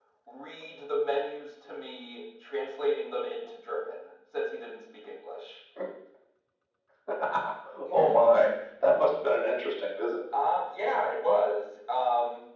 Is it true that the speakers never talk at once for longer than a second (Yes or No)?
Yes